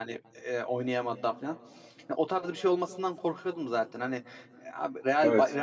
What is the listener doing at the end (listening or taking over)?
listening